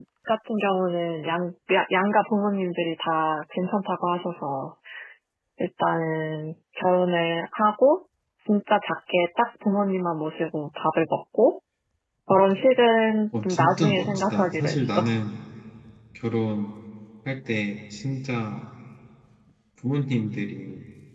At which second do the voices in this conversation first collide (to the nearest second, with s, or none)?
13 s